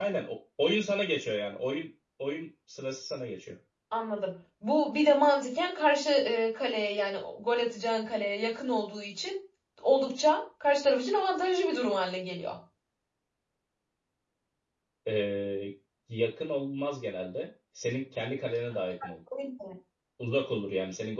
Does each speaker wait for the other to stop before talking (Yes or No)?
Yes